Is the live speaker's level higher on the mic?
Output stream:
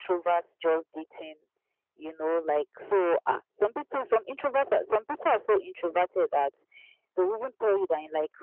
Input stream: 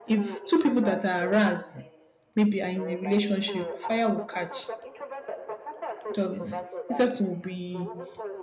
Yes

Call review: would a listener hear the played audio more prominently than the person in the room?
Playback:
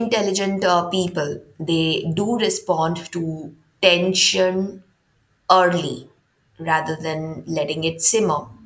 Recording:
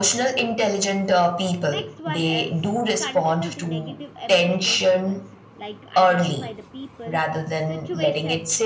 Yes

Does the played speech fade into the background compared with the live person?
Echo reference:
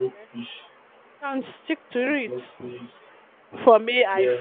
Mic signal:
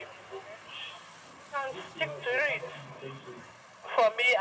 No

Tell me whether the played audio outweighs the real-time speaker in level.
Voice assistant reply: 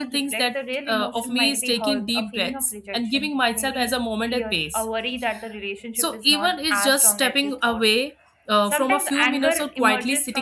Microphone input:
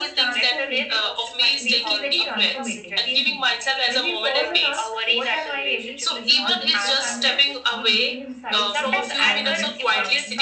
Yes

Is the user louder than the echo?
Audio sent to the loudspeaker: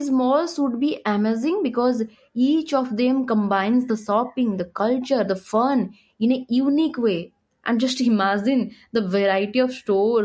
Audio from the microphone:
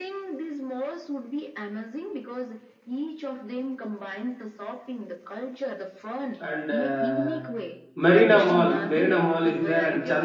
Yes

